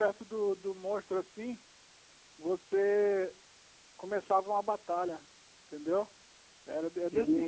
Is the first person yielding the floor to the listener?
Yes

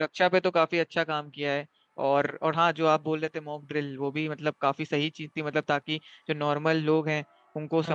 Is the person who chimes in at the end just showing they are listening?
Yes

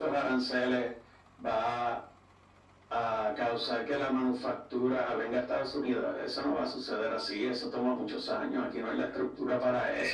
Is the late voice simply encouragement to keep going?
No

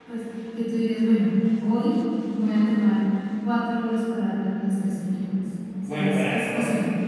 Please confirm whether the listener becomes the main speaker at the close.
Yes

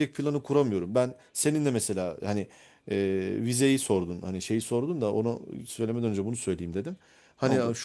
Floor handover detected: No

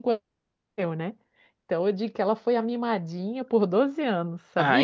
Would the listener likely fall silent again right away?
No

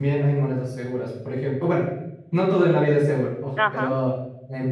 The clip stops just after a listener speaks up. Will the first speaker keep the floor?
Yes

